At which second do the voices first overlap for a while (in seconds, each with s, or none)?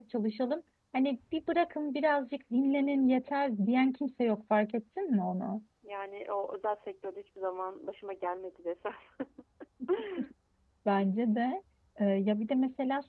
none